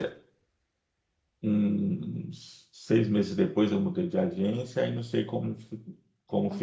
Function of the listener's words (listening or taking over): listening